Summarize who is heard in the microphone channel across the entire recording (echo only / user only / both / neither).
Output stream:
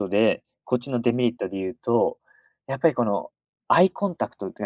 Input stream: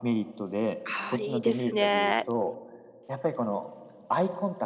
both